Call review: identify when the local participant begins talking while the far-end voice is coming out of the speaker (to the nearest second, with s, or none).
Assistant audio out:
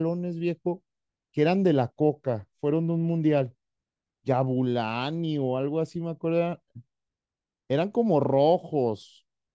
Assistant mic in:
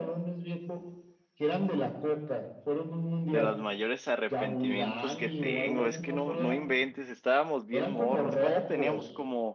3 s